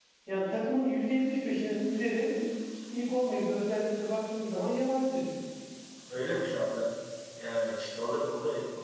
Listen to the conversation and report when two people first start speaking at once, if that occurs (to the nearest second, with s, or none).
none